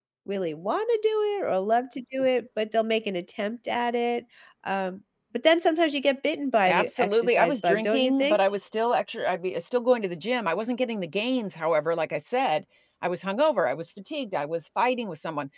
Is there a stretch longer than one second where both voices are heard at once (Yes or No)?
Yes